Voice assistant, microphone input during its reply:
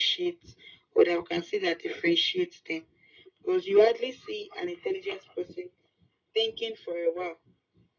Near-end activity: none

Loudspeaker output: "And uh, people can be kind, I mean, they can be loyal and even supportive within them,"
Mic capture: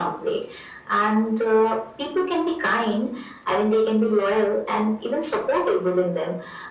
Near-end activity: none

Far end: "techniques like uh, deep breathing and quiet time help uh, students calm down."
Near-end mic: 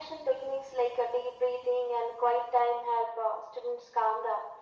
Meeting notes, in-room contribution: none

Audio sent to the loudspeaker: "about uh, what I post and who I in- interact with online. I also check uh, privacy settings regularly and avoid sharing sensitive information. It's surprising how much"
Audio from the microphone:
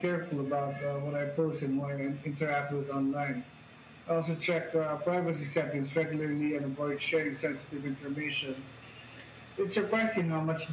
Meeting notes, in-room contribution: none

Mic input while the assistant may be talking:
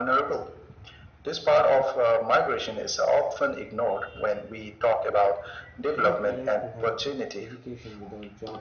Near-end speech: present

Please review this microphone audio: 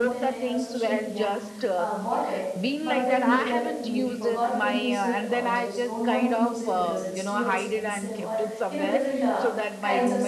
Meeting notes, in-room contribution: present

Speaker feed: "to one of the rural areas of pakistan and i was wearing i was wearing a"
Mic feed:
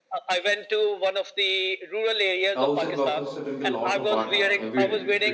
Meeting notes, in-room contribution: present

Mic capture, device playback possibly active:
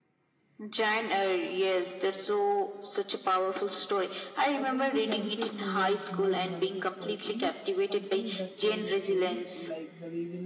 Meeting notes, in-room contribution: present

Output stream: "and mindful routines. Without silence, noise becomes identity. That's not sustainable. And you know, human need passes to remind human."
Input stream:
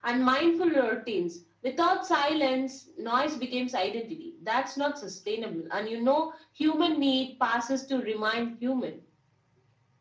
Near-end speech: none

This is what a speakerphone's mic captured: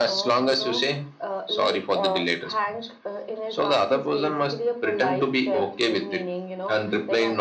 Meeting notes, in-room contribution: none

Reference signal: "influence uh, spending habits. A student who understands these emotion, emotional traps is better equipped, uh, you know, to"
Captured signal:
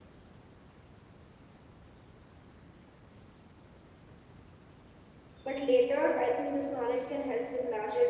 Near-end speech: present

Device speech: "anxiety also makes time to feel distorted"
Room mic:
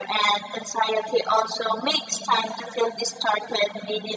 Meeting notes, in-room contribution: none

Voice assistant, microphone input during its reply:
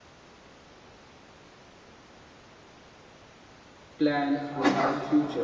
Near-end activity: present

